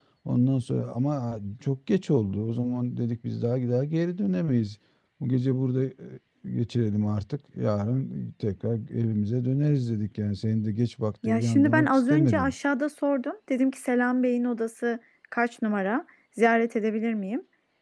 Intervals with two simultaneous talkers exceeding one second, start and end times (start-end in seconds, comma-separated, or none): 11.2-12.5